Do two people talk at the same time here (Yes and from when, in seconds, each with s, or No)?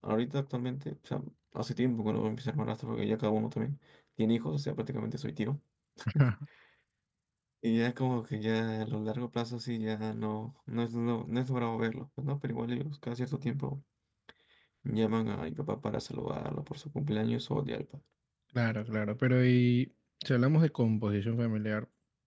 No